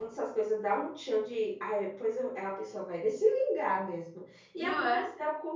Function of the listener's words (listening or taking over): listening